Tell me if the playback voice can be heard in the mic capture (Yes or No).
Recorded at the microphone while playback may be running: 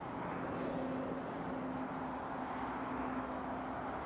No